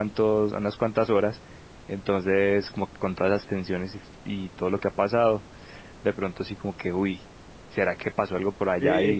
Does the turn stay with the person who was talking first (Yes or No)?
No